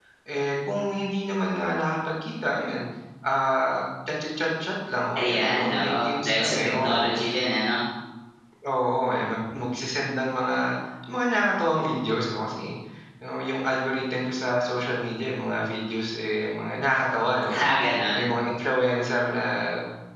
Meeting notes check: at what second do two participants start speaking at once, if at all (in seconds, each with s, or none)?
5.2 s